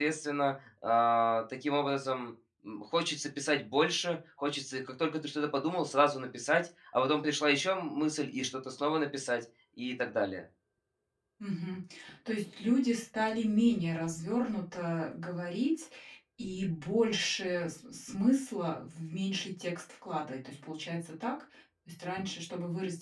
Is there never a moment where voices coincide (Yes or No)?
Yes